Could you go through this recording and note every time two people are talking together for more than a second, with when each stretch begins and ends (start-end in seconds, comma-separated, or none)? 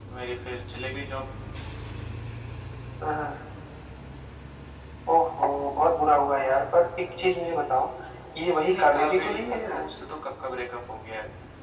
8.6-9.9